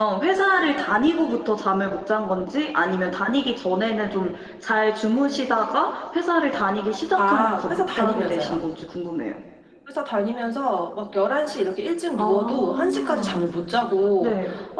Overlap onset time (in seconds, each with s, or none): 7.2 s